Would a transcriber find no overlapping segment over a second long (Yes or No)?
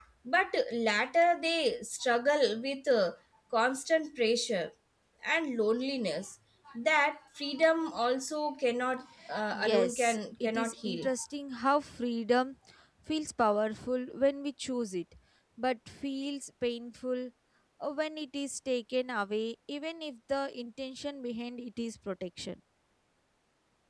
No